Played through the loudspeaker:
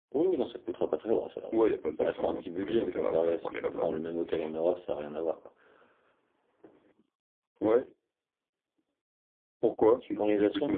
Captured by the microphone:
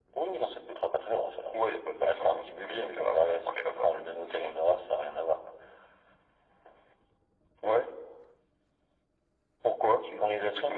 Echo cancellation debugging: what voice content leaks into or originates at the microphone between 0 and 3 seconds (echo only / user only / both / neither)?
echo only